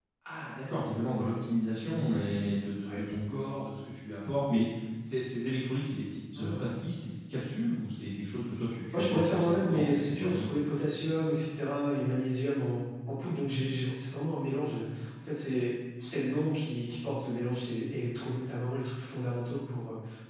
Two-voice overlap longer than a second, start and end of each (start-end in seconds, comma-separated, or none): 8.9-10.5